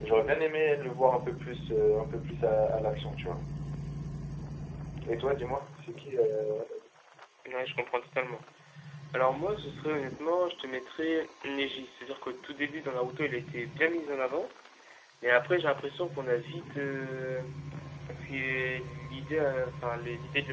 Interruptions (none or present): none